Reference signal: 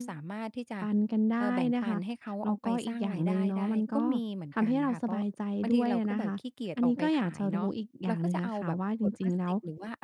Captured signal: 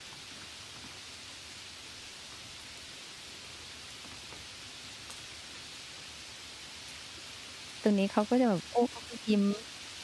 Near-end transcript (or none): ตรงนี้เขาก็จะแบบ โอ้ เขาก็ ยิ้ม